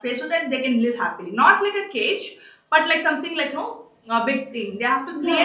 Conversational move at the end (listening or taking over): taking over